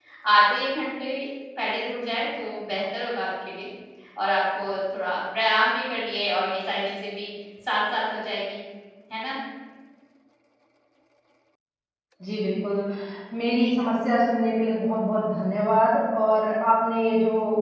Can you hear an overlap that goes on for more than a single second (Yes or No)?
No